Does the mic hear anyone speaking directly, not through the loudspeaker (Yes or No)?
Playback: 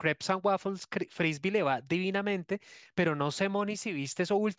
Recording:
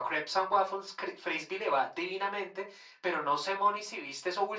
No